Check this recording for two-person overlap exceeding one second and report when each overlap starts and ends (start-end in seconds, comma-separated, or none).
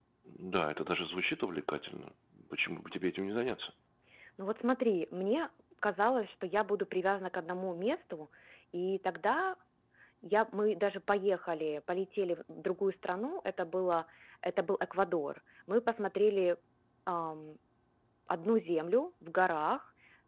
none